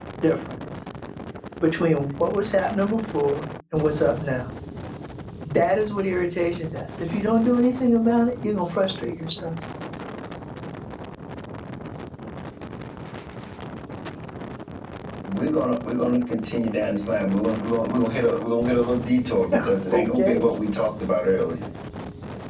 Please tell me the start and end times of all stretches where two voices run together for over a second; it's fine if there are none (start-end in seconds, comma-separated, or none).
none